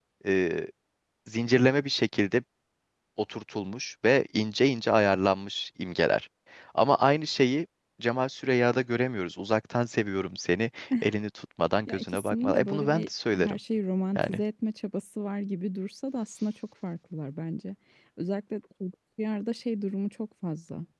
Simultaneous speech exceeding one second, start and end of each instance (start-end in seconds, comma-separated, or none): 11.9-13.6